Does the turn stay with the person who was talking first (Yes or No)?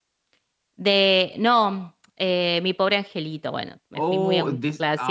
No